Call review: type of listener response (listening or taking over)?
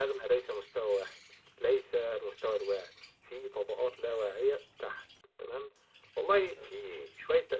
listening